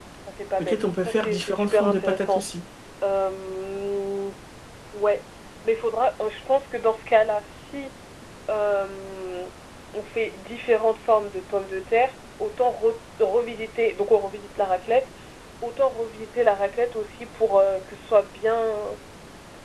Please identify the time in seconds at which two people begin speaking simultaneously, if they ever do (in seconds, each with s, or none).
0.6 s